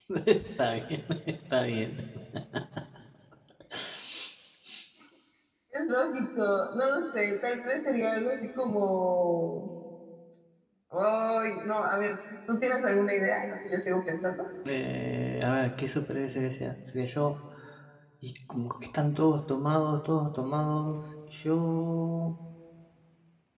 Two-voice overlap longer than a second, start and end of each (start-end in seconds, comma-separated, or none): none